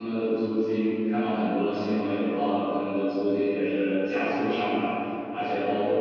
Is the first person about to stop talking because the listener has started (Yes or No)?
No